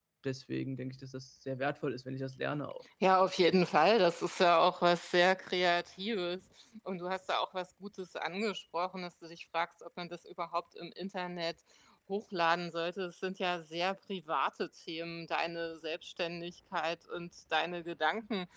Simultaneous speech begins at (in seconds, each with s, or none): none